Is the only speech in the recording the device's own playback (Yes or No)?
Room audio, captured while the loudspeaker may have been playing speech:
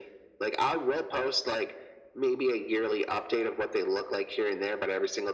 Yes